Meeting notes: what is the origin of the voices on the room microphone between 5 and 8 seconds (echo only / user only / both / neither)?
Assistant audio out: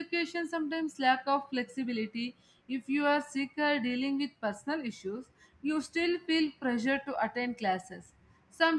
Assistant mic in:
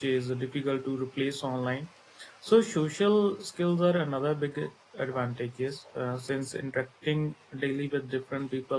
user only